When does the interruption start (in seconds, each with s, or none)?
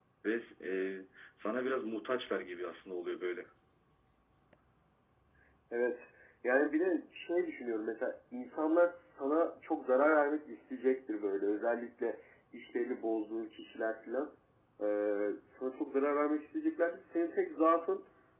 none